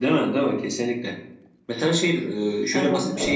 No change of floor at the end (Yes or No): Yes